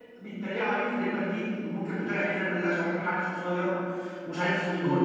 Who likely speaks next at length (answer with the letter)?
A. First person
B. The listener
A